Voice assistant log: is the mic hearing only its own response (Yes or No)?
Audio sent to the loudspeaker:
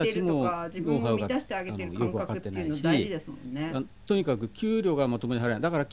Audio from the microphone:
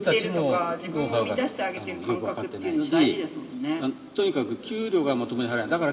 Yes